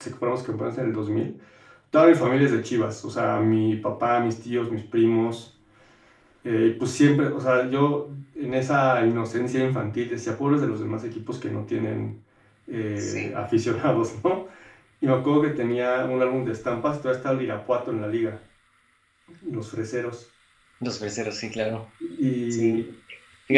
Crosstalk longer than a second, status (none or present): none